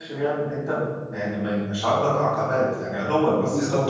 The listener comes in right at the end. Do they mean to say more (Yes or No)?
Yes